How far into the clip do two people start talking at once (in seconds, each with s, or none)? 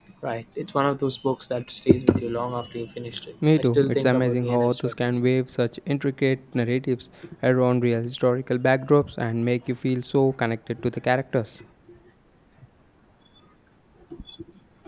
3.4 s